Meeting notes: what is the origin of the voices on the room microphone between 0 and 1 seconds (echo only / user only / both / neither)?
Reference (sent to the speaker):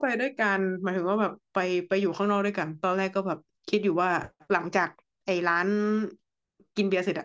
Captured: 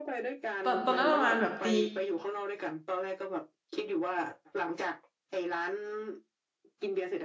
both